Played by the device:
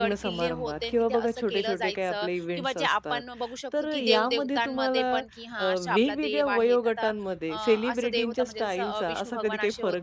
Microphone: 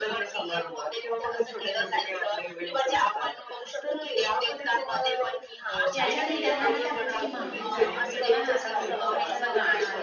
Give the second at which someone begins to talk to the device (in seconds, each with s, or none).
5.9 s